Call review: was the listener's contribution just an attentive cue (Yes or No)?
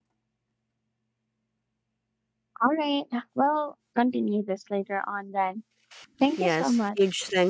No